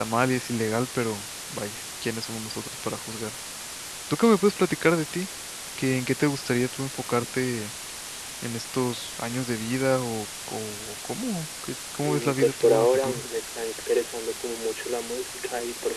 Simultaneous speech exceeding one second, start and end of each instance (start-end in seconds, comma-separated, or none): 12.0-13.2